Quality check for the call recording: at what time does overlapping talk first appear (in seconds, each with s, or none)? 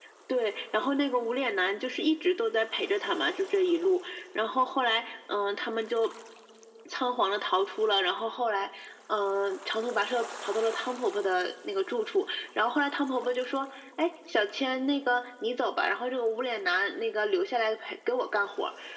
none